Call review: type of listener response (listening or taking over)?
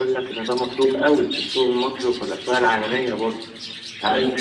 listening